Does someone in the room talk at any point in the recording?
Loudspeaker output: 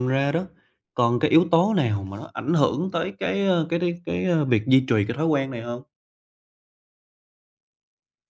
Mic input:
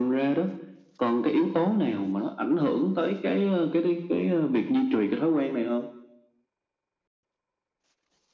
No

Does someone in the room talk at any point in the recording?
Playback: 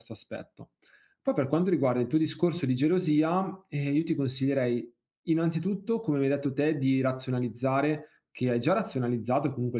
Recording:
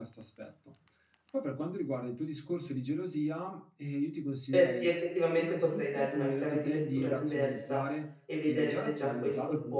Yes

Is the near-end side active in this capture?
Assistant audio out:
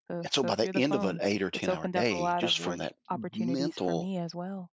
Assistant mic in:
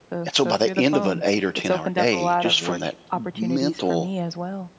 No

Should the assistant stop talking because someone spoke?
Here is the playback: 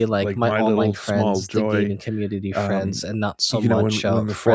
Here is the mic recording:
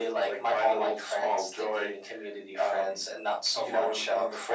No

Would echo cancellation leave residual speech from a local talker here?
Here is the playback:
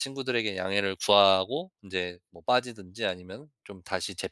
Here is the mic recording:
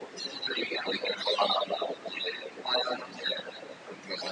No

